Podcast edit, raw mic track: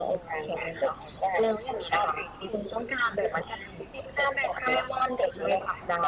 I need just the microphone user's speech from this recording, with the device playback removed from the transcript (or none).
none